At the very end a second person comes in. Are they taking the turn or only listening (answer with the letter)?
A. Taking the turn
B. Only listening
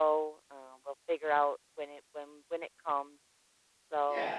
A